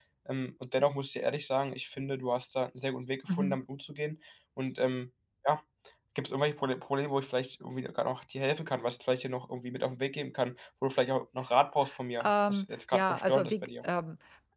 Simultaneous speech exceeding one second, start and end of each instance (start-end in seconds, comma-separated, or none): 12.2-13.7